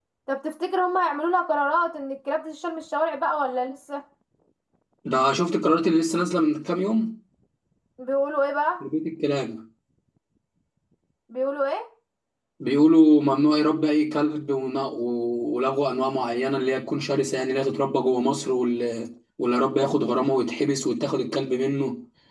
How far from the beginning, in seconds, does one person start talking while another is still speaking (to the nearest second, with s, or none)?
none